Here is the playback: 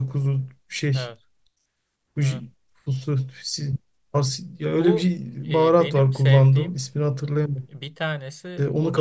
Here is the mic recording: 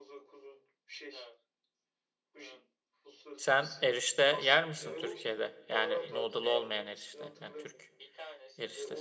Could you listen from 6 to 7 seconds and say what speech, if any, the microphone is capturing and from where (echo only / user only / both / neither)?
both